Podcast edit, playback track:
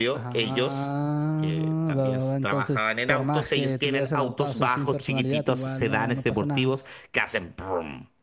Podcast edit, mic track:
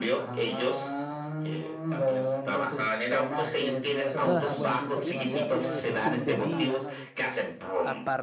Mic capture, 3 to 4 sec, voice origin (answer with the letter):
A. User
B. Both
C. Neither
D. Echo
D